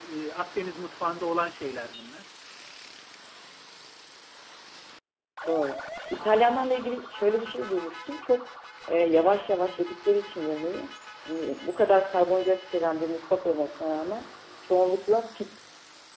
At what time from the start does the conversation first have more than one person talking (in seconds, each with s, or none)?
none